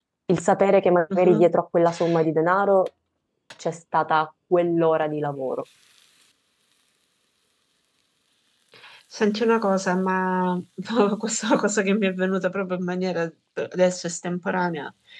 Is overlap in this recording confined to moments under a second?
Yes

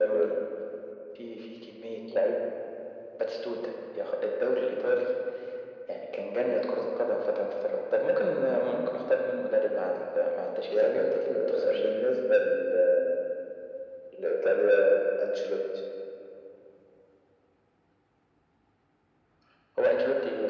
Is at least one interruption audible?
Yes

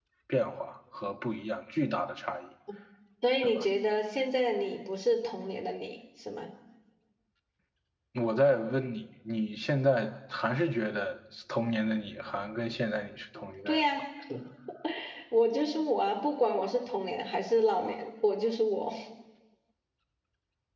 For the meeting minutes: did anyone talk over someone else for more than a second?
No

